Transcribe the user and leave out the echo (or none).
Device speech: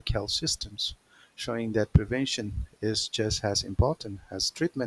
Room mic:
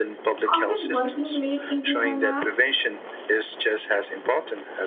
often working late into the night.